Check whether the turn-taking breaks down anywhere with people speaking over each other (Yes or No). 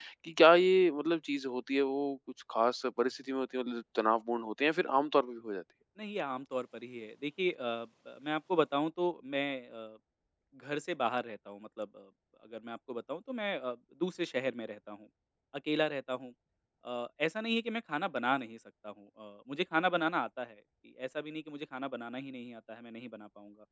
No